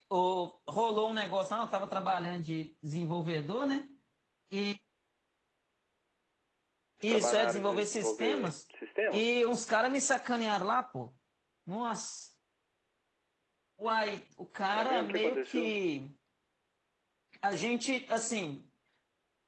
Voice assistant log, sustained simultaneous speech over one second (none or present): present